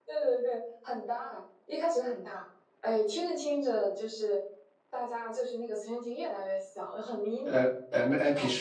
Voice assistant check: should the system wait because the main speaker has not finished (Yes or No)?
No